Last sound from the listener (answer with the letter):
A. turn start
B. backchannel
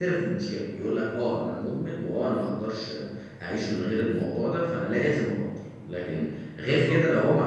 B